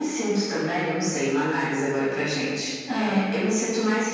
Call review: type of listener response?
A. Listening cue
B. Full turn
A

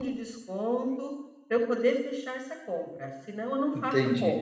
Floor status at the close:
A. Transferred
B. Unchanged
A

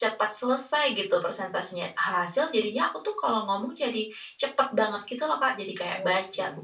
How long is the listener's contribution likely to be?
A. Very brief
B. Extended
A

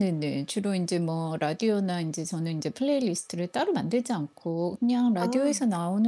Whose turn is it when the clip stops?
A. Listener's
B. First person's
B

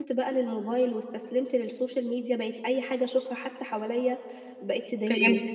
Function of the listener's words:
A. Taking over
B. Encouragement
B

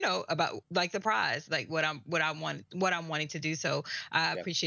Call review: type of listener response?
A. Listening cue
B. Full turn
A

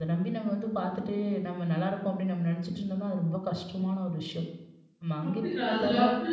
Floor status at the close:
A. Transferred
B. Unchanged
A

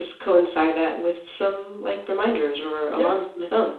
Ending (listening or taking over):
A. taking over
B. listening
A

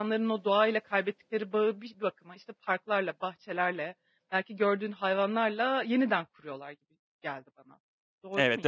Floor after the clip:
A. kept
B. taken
B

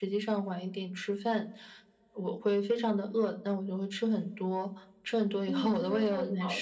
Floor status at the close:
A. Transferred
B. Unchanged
A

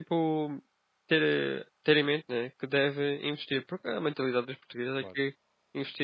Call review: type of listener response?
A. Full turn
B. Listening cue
B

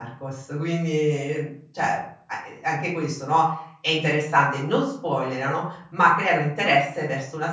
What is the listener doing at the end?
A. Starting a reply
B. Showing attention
B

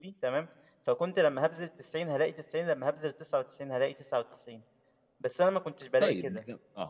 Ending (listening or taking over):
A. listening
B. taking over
B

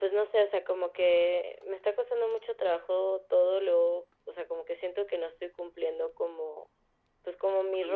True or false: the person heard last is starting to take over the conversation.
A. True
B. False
B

